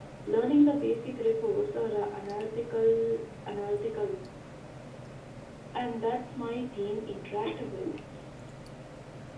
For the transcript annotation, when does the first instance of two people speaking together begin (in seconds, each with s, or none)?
none